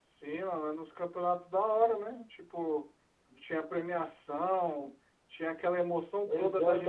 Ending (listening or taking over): taking over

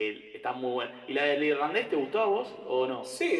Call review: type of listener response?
taking over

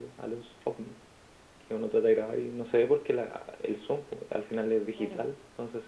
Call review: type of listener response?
listening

